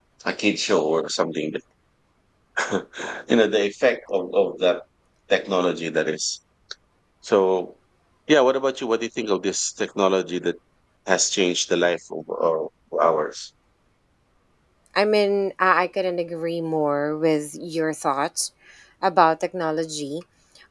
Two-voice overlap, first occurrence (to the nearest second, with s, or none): none